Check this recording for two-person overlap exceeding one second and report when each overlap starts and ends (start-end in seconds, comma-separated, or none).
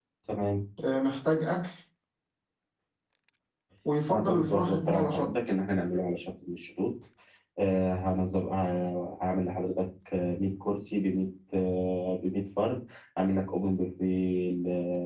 4.1-5.3